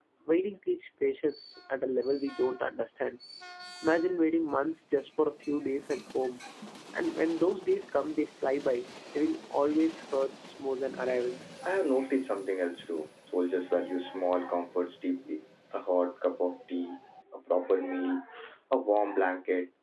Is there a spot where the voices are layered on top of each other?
No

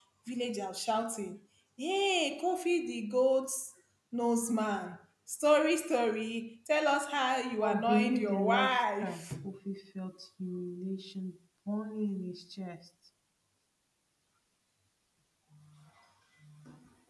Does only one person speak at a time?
No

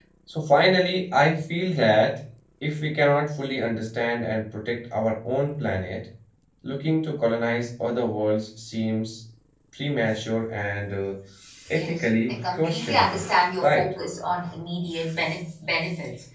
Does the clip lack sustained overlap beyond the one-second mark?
No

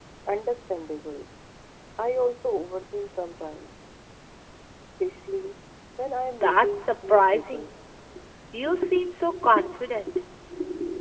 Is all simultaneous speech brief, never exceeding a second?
No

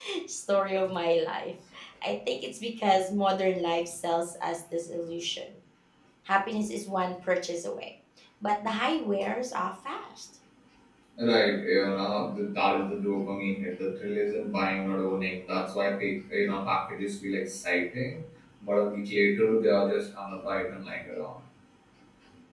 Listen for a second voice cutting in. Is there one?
No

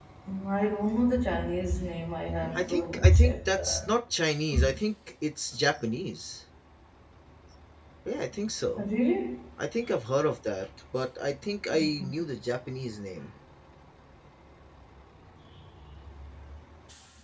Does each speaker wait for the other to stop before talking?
No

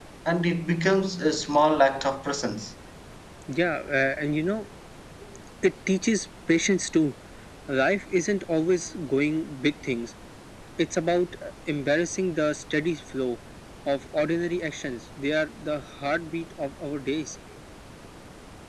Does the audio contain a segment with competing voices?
No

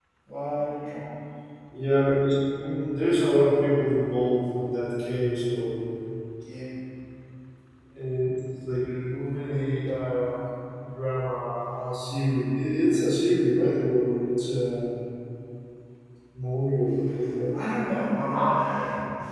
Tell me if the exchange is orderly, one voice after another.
Yes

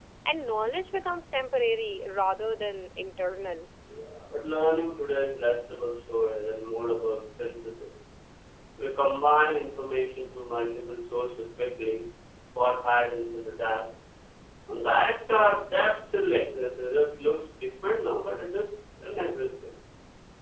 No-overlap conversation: Yes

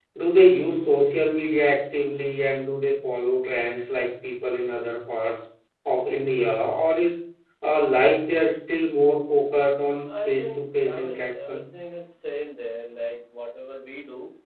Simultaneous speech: Yes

